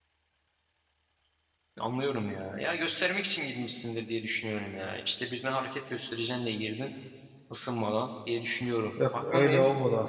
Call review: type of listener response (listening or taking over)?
taking over